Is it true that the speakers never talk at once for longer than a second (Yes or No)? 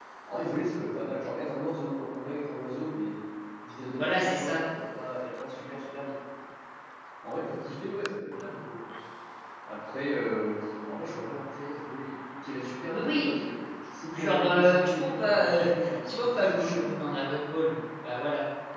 No